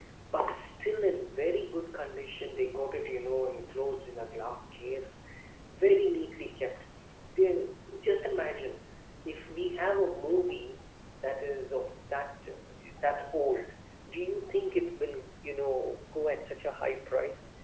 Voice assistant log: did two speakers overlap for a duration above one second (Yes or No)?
No